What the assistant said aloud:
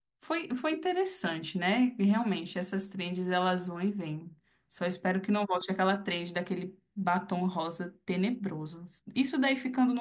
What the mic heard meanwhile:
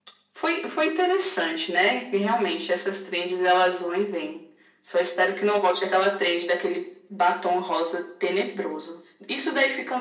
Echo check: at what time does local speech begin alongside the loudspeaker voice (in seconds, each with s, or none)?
none